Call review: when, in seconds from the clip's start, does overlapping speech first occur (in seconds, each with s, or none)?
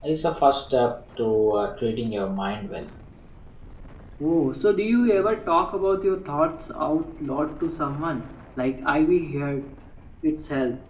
none